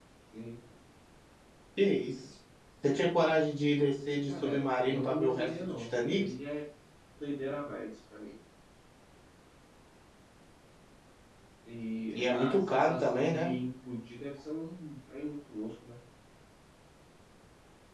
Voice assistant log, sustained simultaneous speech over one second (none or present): present